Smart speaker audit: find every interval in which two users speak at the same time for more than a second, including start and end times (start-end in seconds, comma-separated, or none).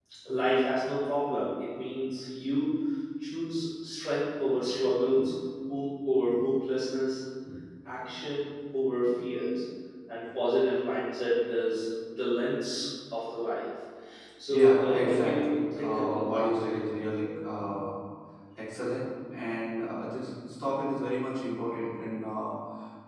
14.5-16.5